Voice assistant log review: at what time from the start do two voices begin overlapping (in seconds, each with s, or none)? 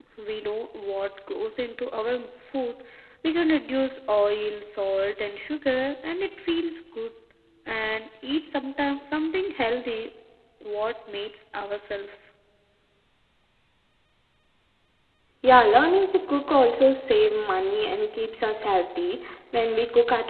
none